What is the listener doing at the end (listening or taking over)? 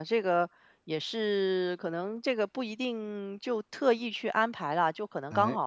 listening